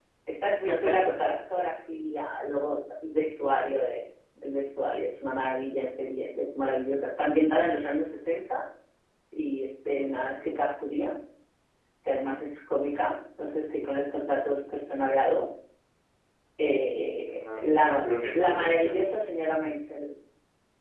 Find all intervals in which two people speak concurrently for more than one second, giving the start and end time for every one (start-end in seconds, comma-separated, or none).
17.3-19.0